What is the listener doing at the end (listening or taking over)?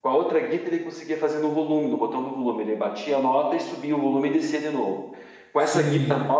listening